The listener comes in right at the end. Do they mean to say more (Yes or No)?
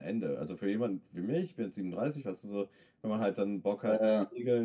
No